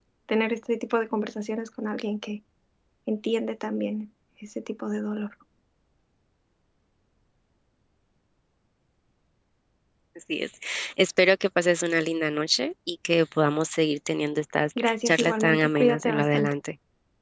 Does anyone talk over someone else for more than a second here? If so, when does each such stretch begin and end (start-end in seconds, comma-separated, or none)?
14.8-16.5